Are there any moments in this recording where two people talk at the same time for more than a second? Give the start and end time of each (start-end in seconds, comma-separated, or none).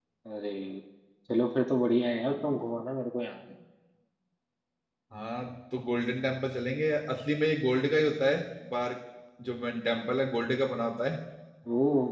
none